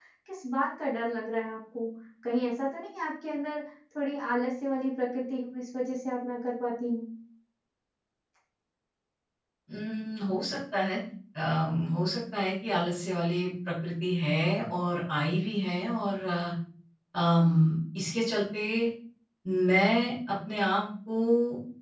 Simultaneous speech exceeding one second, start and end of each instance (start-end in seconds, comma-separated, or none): none